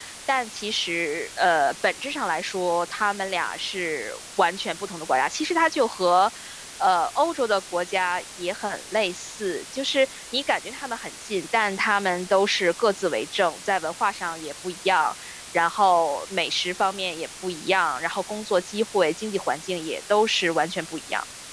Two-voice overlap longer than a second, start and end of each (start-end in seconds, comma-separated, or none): none